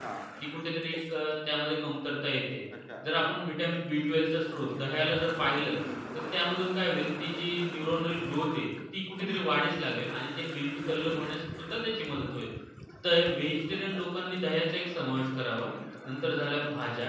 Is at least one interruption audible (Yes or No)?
No